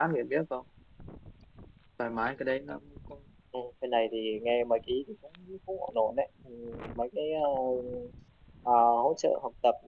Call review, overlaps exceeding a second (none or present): none